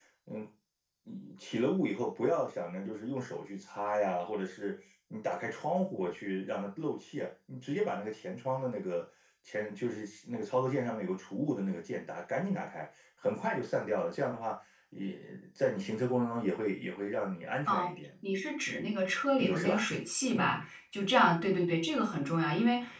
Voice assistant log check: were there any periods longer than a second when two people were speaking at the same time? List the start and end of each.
none

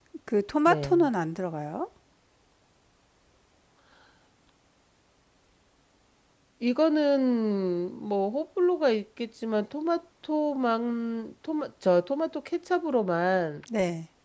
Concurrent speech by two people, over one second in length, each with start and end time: none

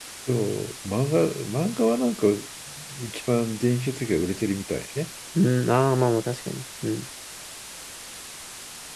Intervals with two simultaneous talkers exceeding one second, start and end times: none

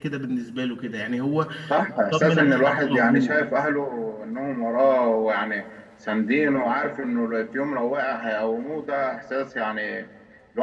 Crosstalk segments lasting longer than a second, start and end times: 2.1-3.3

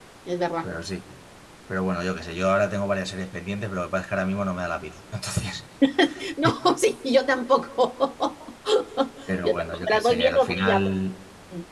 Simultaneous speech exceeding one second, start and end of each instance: 9.4-10.9

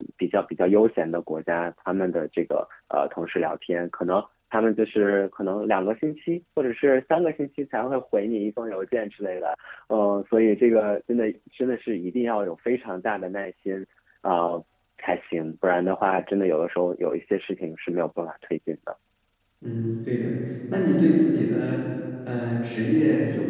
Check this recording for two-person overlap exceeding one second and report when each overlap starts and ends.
none

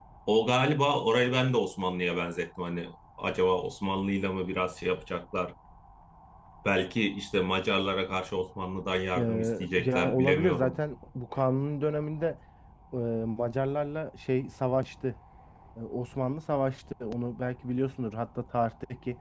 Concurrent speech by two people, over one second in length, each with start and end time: 9.2-10.8

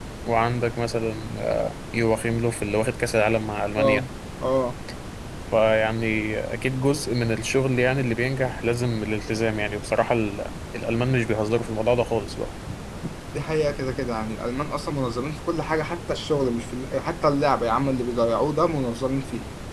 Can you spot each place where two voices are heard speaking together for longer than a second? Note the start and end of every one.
none

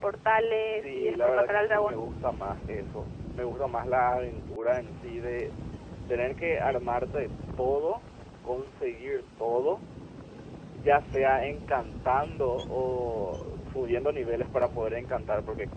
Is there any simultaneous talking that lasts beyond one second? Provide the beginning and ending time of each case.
0.6-2.0

